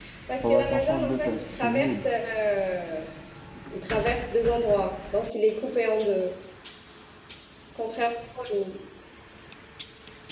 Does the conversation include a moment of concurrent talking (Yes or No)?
Yes